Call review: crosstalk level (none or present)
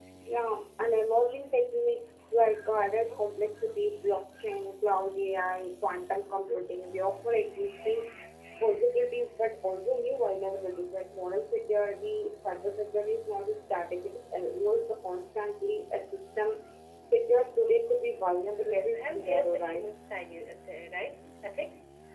present